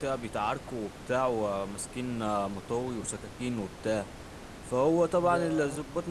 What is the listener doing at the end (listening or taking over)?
listening